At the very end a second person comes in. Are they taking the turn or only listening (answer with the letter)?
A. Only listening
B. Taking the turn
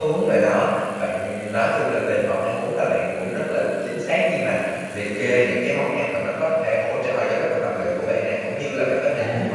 A